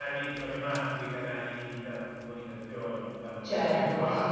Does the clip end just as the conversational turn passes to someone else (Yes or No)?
Yes